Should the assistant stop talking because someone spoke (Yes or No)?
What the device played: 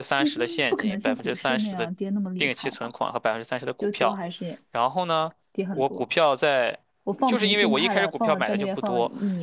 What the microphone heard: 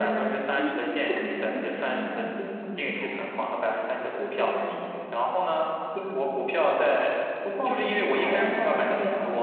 No